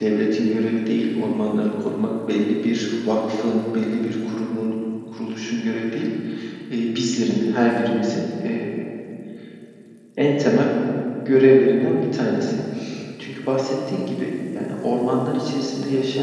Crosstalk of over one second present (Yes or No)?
No